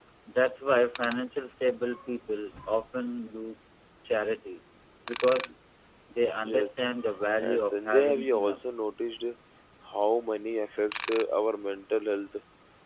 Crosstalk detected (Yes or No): Yes